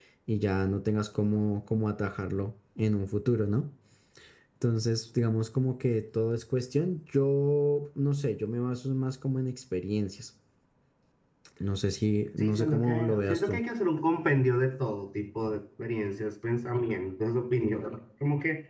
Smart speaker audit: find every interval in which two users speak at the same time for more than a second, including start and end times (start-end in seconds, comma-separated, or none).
12.4-13.6